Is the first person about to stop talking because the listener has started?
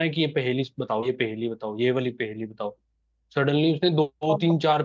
No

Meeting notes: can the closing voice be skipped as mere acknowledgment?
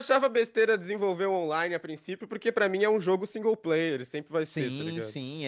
No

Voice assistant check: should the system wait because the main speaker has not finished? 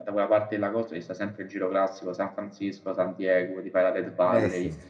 Yes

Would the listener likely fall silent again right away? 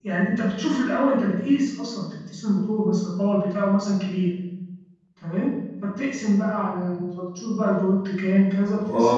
No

